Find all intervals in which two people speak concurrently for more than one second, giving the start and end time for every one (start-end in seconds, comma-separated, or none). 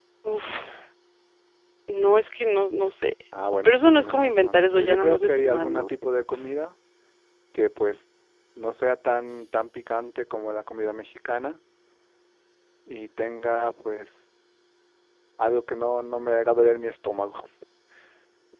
3.6-5.9